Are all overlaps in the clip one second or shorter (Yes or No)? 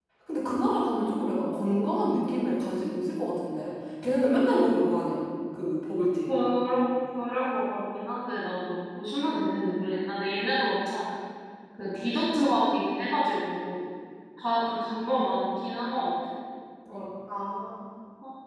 Yes